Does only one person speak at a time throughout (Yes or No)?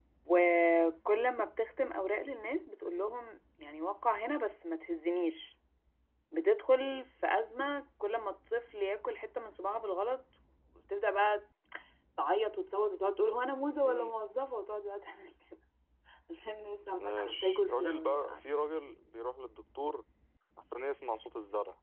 No